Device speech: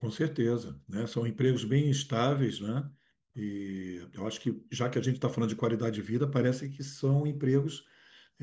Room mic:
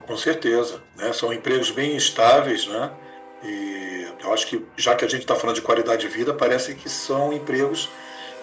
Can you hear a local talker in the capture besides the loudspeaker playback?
No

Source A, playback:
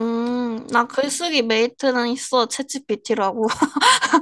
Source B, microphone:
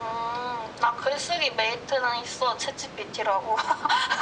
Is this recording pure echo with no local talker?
Yes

